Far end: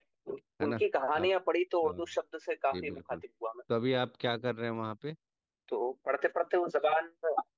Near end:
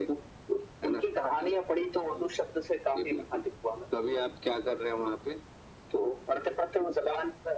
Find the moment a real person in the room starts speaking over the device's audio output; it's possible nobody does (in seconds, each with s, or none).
none